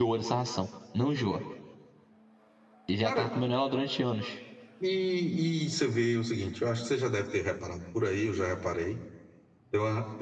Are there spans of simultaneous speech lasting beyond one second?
No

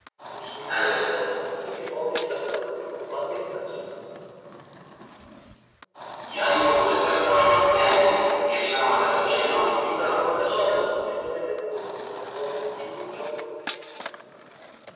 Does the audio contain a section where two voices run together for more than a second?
Yes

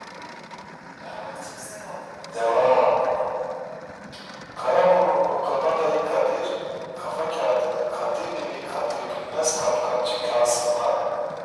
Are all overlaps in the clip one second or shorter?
Yes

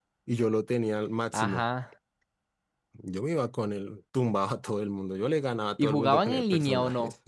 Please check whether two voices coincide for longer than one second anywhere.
Yes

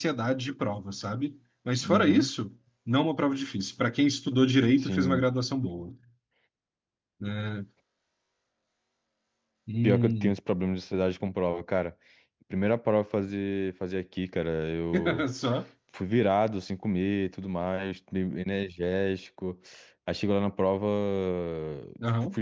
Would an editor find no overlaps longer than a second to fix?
Yes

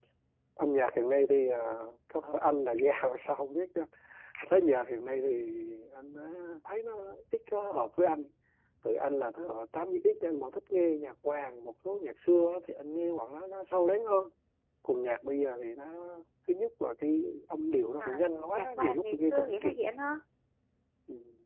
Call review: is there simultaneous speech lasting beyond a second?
Yes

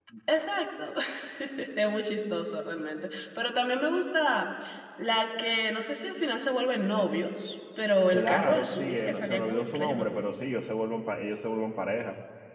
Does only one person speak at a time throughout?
No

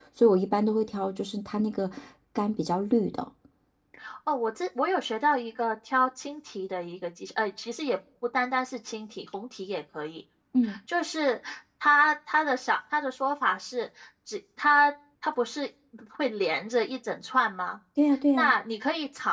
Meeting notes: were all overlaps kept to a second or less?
Yes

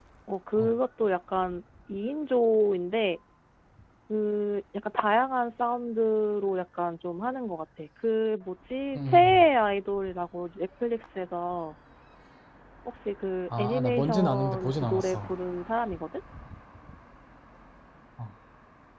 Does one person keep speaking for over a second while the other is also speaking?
Yes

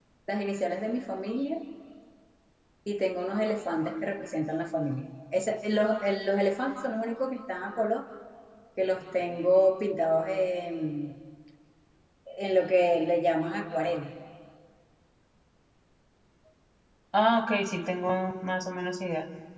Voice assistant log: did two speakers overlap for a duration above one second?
No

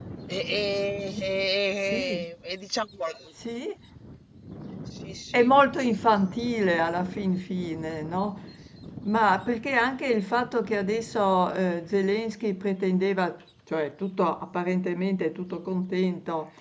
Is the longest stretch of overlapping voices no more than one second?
Yes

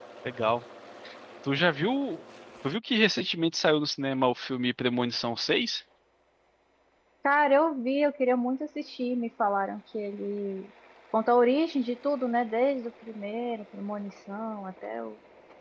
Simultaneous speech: No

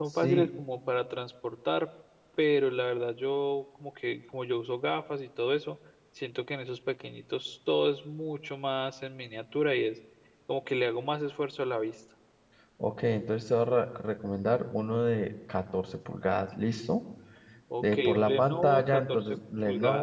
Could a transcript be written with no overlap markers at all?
No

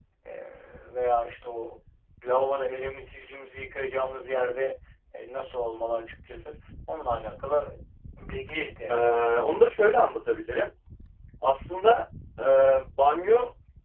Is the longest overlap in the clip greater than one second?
No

